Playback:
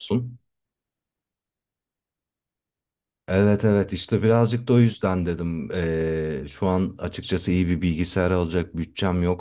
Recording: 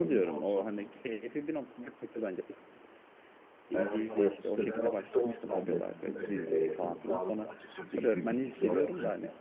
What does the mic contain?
both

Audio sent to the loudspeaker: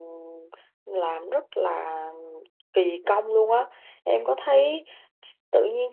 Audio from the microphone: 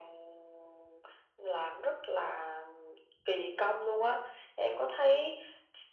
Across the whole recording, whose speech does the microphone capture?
echo only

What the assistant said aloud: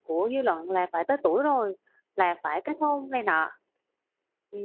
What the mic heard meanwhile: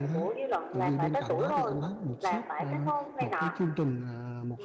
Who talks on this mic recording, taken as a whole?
both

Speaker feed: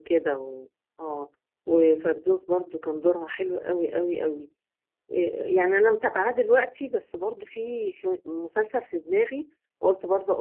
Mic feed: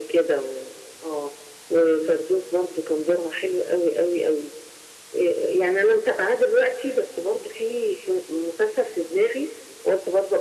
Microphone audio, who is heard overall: echo only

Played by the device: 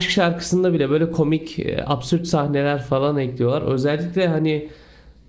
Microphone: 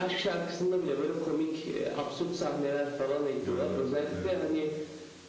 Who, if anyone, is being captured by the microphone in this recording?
both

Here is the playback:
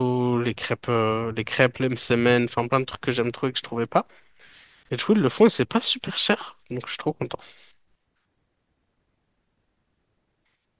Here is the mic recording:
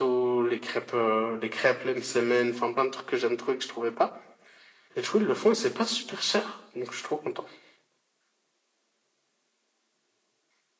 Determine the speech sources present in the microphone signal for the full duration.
echo only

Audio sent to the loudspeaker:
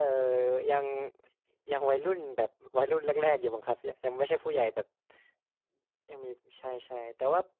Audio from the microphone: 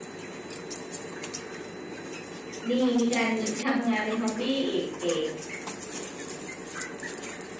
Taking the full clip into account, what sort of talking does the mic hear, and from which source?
user only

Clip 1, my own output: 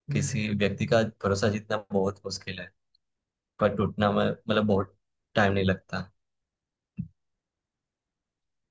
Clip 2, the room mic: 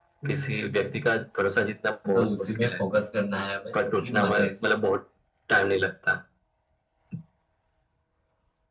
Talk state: both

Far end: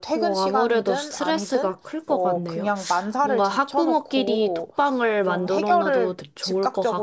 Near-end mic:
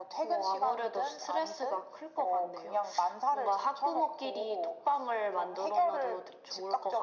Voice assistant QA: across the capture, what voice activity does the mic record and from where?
echo only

